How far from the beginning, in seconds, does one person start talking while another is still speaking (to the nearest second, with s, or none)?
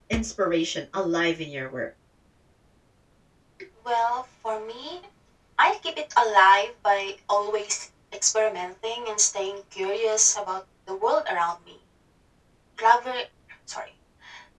none